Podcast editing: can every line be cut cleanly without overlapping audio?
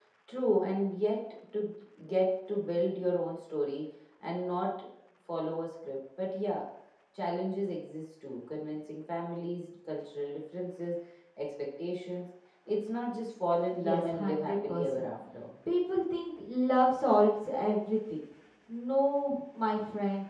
No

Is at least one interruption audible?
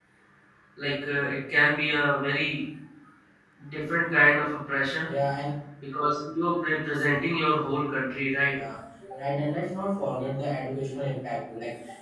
No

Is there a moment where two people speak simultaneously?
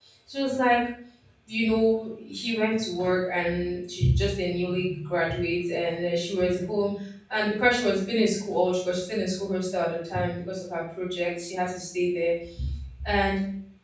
No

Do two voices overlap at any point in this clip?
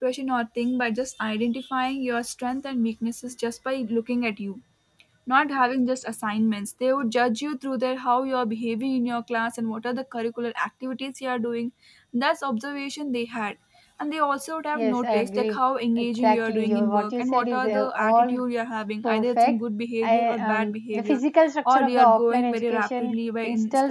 Yes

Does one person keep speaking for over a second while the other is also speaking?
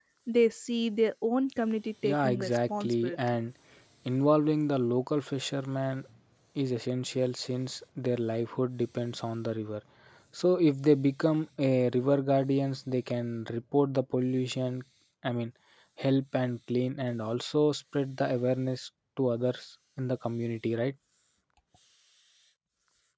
Yes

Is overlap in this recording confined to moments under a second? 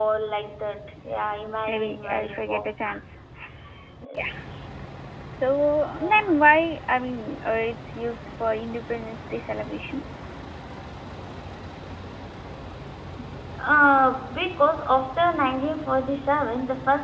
No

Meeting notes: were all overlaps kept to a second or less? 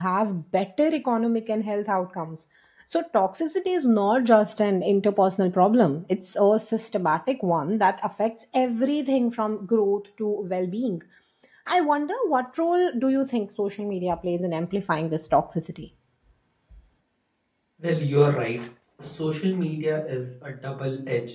Yes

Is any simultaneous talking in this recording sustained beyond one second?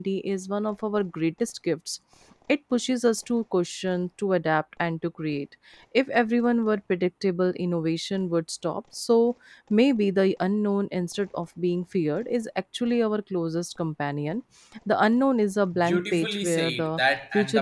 Yes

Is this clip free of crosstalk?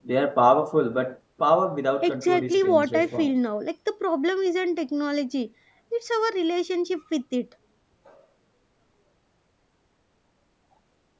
No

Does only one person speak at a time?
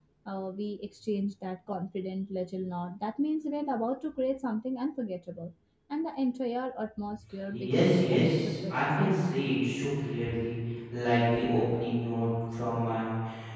No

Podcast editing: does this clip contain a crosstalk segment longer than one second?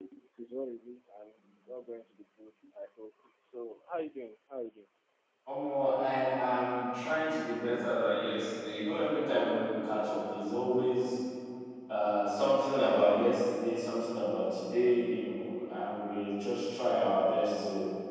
No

